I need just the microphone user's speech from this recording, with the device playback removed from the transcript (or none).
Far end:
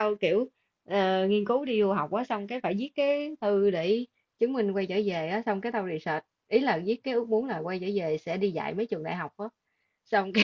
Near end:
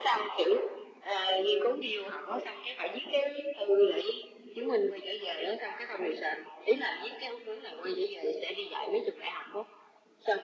none